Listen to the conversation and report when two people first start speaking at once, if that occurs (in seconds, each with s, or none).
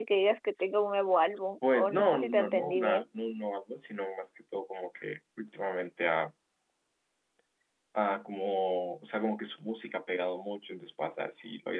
1.6 s